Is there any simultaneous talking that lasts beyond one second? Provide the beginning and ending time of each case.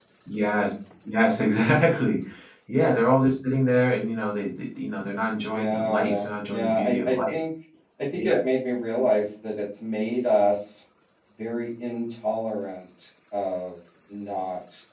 5.5-7.3

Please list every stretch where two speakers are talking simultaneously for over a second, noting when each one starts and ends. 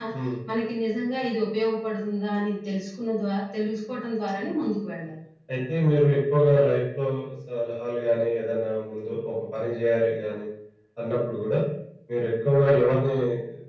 none

